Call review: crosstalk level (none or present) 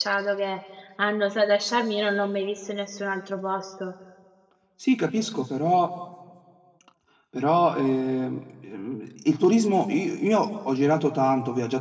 none